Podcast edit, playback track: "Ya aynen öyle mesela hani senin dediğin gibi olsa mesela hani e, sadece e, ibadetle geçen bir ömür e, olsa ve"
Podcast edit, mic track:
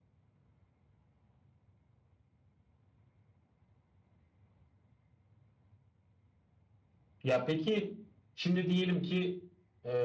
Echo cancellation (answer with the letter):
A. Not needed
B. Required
A